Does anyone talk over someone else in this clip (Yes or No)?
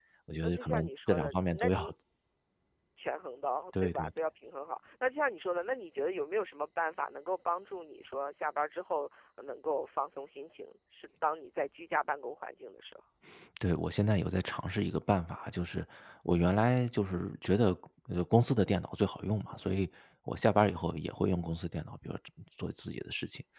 Yes